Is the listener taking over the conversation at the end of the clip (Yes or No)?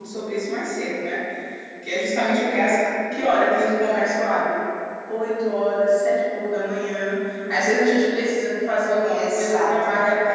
No